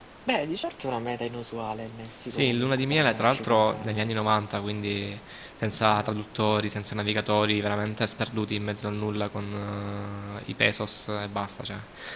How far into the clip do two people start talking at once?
2.3 s

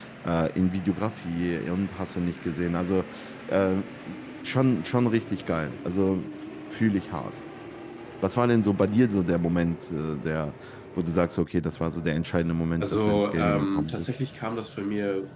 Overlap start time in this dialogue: 12.8 s

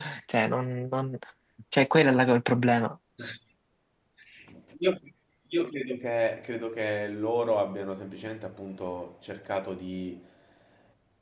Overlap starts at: none

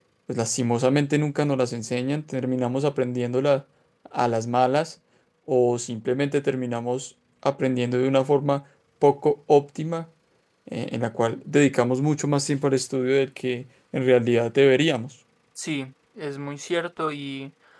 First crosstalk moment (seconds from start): none

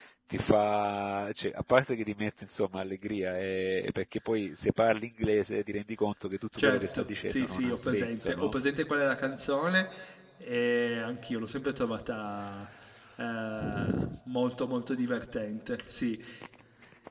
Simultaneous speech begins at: 6.6 s

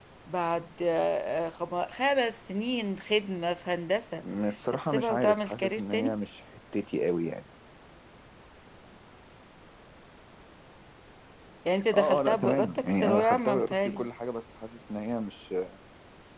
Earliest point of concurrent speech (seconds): 4.7 s

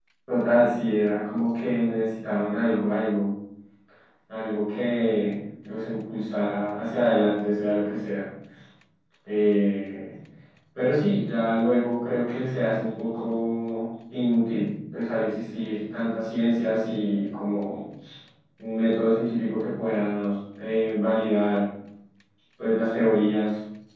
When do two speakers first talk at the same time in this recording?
none

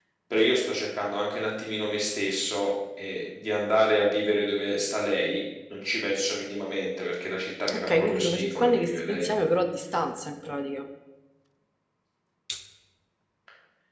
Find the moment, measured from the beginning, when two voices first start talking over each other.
7.7 s

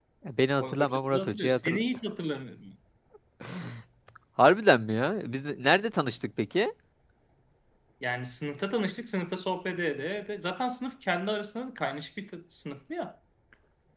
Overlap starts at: 0.6 s

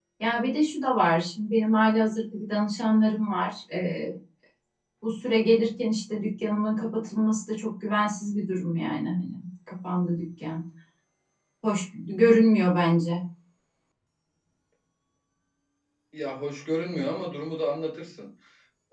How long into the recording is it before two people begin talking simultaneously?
none

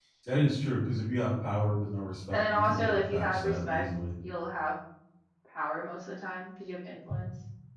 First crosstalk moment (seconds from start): 2.3 s

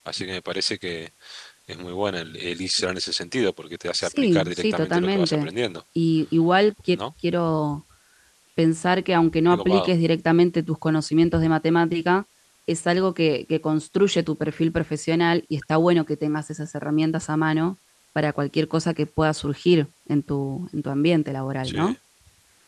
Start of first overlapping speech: 4.0 s

